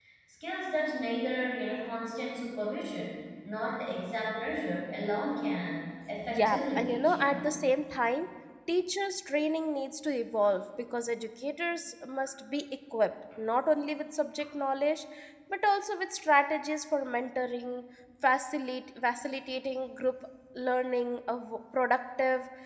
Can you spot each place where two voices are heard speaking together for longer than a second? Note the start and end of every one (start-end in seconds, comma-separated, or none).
6.3-7.5